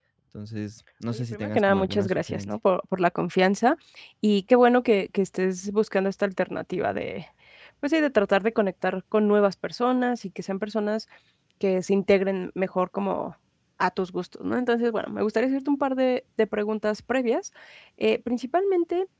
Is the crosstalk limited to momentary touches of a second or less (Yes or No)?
No